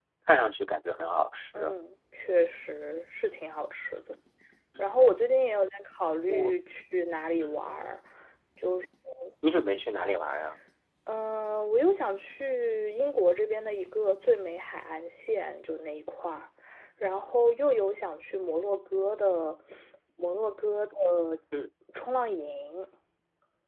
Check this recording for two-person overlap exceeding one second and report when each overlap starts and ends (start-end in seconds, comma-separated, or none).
none